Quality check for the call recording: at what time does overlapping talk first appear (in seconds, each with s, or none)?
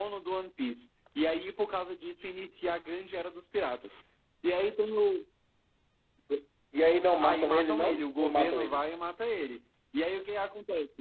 7.2 s